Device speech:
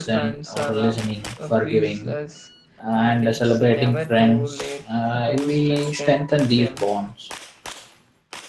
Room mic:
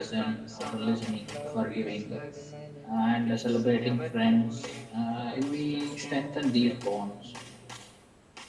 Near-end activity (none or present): present